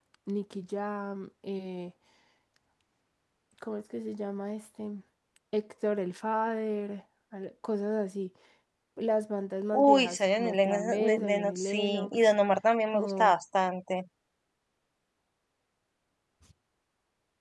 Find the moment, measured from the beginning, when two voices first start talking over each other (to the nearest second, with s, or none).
10 s